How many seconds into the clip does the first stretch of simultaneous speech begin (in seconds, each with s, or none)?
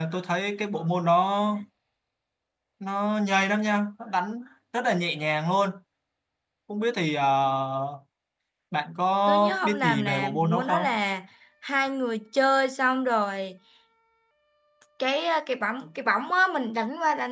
9.3 s